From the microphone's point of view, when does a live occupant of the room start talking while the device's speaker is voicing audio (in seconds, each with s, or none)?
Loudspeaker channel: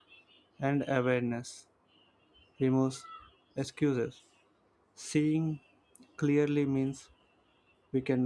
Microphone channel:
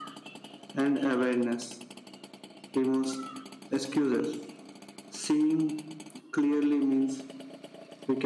none